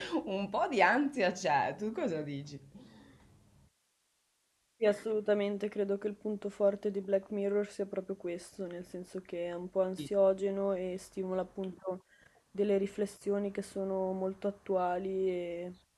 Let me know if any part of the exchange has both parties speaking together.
No

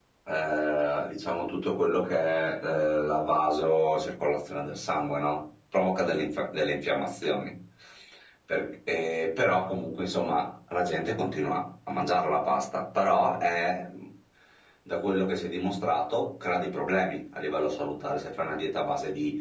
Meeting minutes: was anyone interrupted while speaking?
No

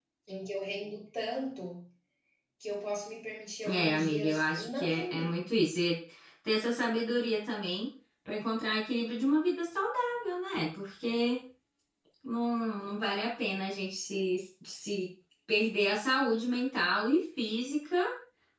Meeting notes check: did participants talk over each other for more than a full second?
Yes, from 3.6 s

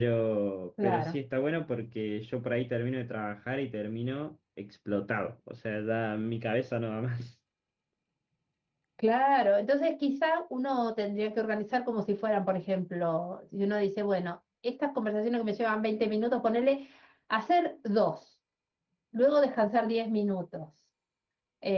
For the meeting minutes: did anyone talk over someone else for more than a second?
No

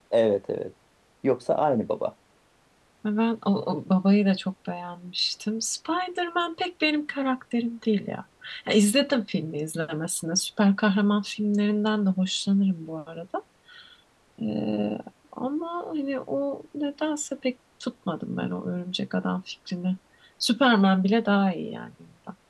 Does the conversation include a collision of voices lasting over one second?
No

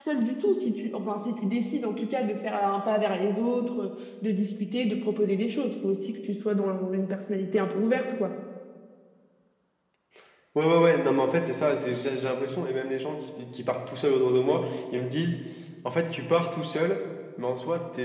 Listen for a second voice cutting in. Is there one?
No

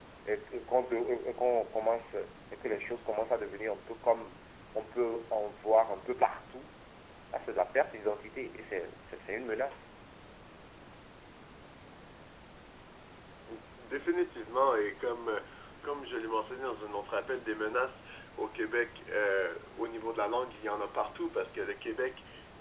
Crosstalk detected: No

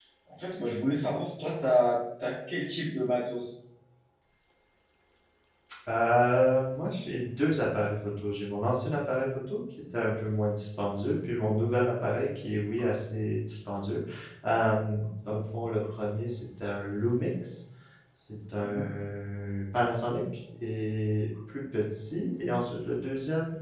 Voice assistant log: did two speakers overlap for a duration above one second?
No

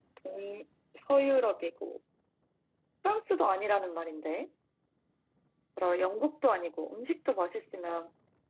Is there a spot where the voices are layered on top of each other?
No

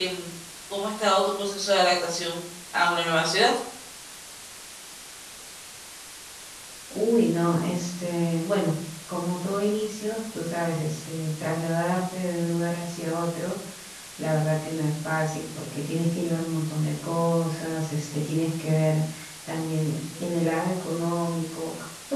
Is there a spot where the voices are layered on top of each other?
No

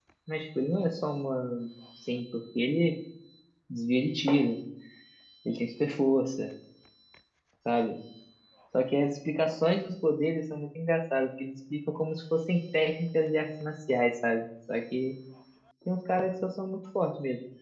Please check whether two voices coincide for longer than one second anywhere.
No

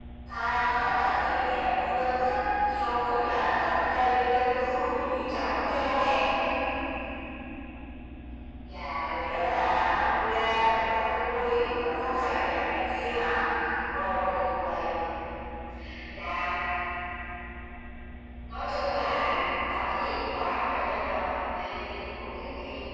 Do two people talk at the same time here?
No

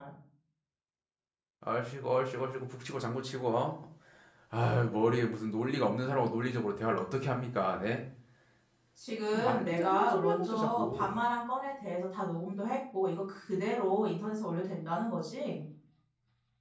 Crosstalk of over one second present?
Yes, from 9.3 s

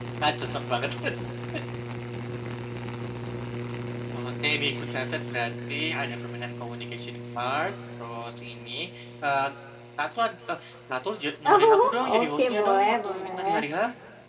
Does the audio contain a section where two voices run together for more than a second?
Yes, from 11.4 s

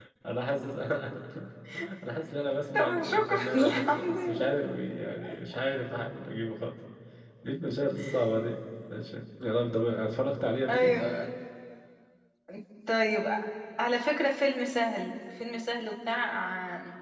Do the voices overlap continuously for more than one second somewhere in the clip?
Yes, from 2.7 s

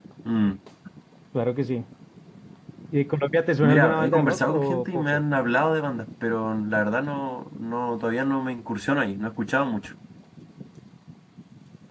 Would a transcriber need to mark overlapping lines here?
Yes, from 3.6 s

